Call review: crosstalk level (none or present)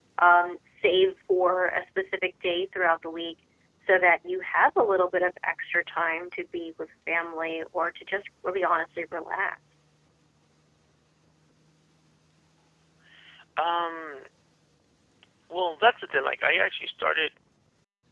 none